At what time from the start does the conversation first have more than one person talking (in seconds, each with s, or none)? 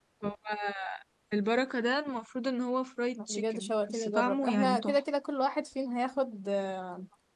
3.1 s